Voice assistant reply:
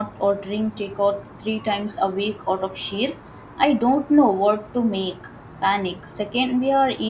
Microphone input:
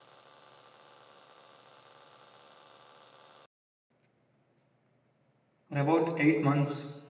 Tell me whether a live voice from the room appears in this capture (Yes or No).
Yes